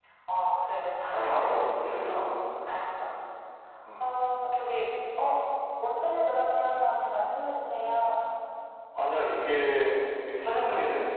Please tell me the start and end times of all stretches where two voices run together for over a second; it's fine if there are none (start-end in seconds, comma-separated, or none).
1.1-2.6